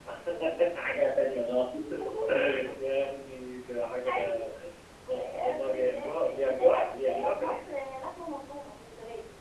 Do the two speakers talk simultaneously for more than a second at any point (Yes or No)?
Yes